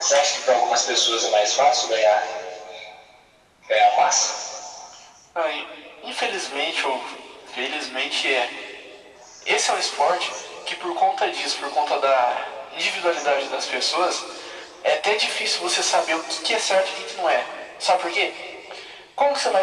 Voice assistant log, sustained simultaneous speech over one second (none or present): none